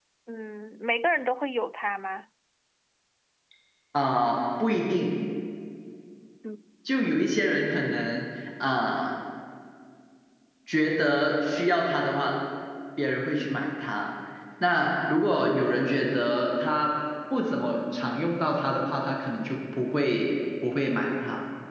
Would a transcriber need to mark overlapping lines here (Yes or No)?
No